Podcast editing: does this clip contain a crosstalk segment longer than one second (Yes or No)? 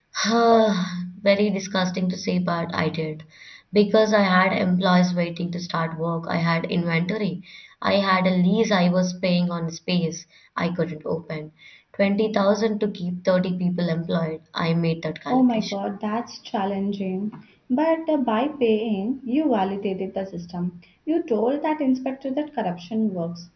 No